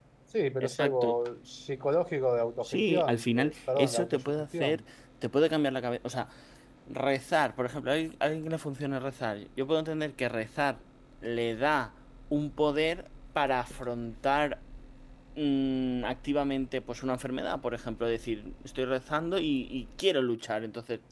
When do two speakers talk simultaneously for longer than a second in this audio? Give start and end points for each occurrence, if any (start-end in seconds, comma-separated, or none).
2.6-4.8